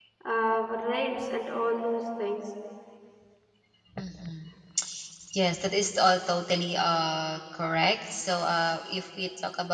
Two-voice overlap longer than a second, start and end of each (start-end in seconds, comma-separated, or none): none